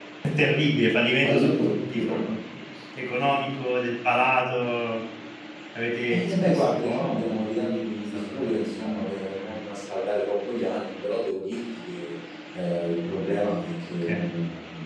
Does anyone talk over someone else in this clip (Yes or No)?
Yes